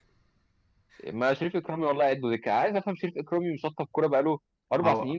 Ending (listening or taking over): taking over